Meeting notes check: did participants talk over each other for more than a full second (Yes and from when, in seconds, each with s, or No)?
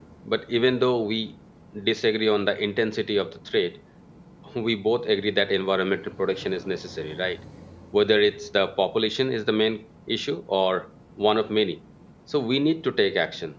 No